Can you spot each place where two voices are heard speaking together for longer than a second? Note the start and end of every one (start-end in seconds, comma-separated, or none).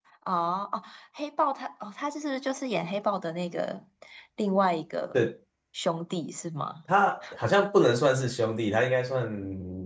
none